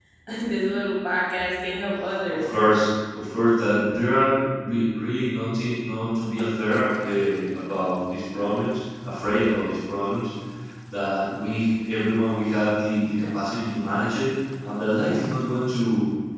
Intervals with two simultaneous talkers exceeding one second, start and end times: none

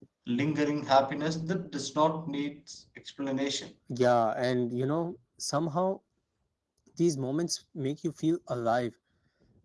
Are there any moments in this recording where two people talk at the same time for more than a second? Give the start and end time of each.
none

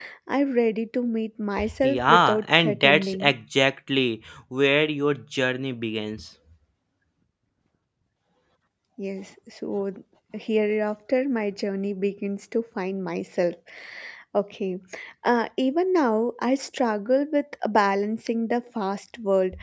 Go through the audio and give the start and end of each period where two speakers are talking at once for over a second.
1.8-3.3

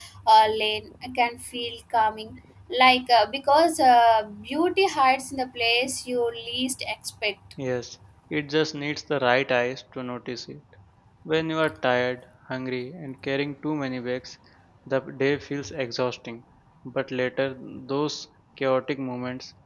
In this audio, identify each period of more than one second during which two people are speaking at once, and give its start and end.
none

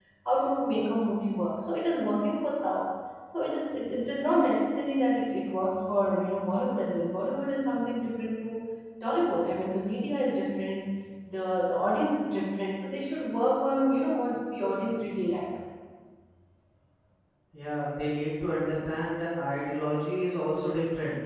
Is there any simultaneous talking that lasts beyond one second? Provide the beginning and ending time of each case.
none

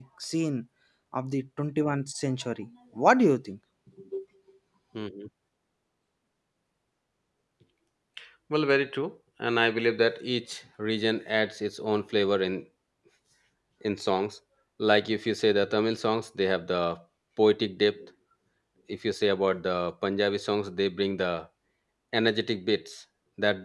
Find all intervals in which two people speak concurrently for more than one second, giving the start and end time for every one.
none

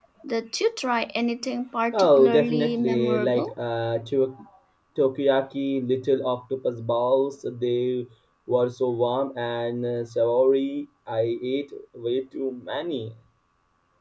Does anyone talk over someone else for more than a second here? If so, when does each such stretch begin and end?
1.9-3.5

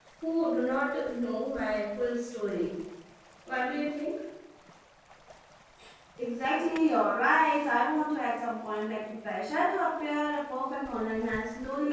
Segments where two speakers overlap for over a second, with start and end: none

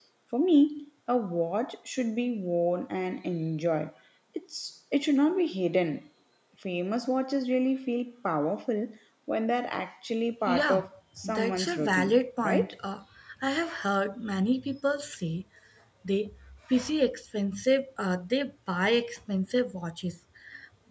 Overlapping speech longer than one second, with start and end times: 11.2-12.7

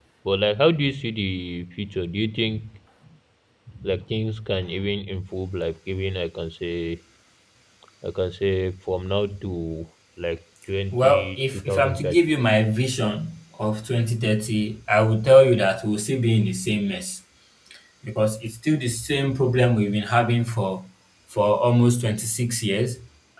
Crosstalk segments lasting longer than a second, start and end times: 10.9-12.2

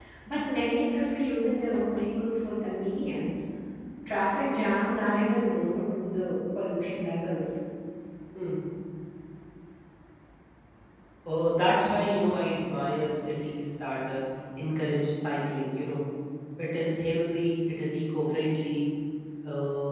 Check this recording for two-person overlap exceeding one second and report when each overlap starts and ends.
none

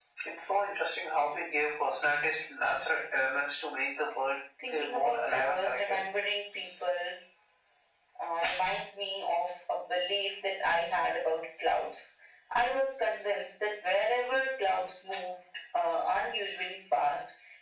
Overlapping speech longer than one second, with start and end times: 4.7-6.0

